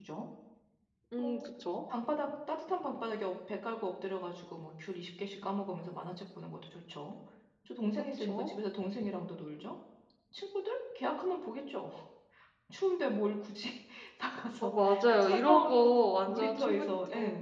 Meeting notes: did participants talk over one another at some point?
Yes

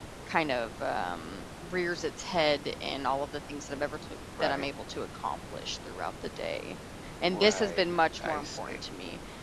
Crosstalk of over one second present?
Yes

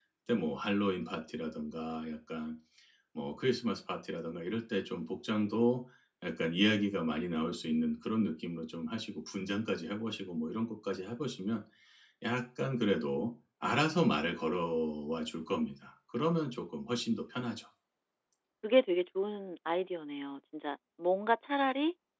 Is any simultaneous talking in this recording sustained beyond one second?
No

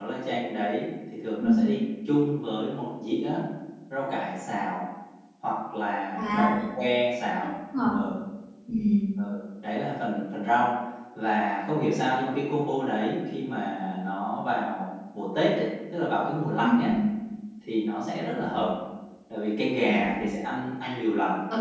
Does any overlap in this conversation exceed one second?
No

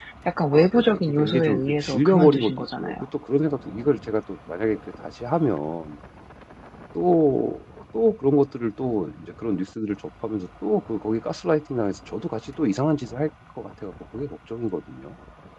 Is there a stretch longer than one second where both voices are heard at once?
Yes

